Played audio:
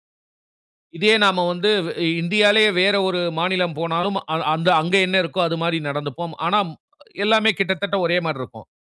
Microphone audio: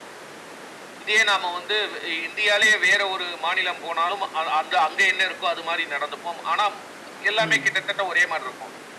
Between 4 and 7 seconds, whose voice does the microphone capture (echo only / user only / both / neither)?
echo only